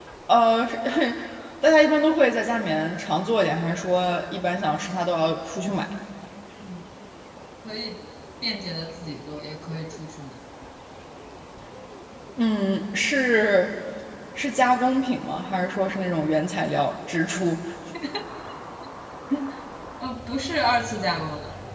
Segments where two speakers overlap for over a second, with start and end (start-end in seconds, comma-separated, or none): none